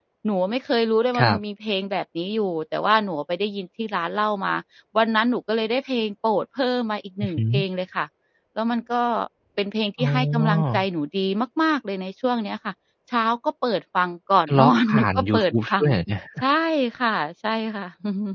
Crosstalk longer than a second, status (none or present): present